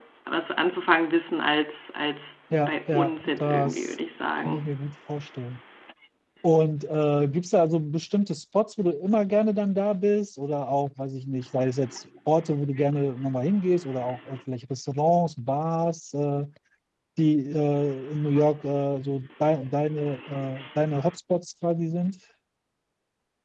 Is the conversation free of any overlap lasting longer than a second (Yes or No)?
No